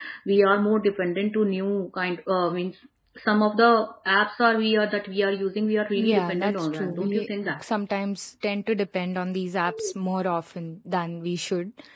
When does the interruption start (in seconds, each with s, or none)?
6.0 s